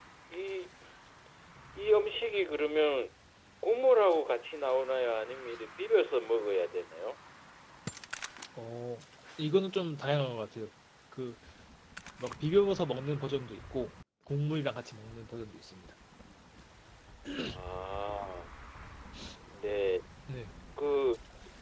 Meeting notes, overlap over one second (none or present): none